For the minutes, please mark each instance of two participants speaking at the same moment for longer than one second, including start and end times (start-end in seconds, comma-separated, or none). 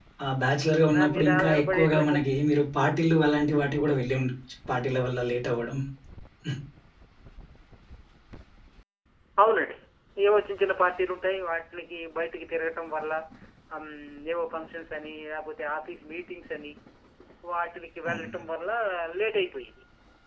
0.9-2.2